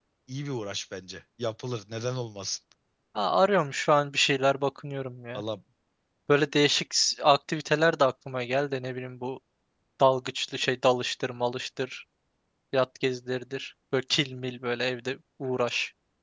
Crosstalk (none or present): none